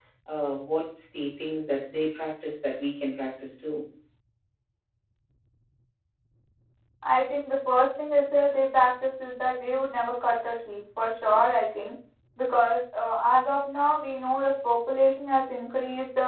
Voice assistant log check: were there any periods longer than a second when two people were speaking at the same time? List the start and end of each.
none

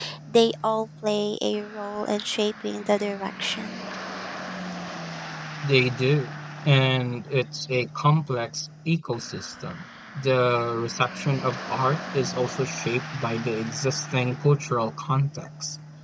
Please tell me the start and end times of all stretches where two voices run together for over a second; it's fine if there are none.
none

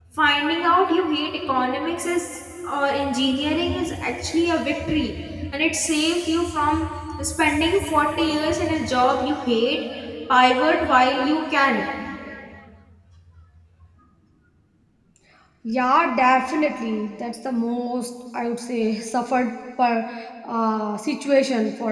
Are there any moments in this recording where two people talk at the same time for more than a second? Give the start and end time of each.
none

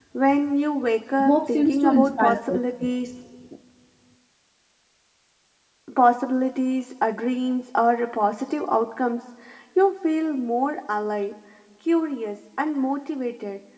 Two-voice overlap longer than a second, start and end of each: 1.2-2.9

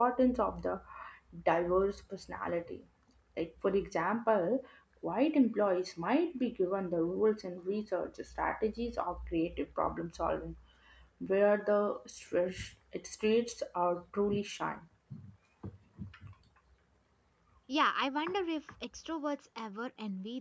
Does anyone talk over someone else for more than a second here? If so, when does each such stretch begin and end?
none

